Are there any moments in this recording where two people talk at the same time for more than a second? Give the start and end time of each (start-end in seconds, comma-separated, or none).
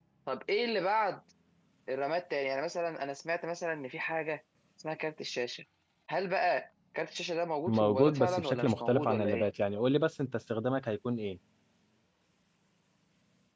7.7-9.4